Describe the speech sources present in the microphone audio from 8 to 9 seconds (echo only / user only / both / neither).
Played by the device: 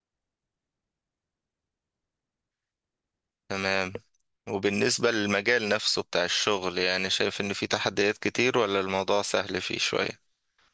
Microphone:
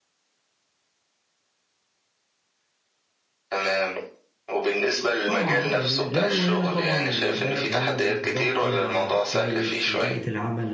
both